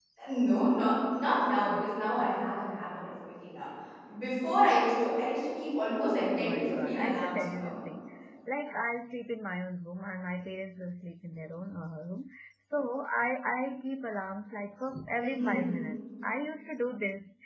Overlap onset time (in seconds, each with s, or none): 6.2 s